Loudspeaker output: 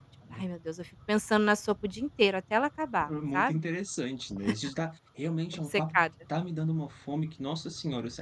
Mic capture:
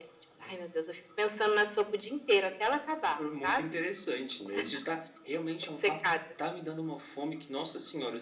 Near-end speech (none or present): none